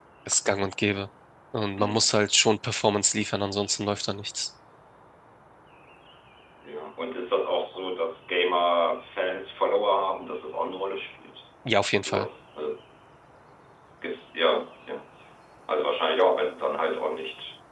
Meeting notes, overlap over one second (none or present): none